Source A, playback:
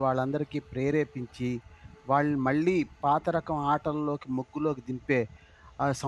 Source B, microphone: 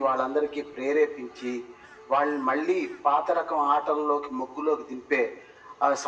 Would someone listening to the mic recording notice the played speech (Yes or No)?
Yes